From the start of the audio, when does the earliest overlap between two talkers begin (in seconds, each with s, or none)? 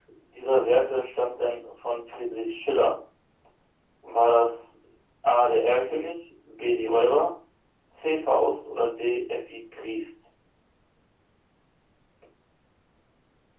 none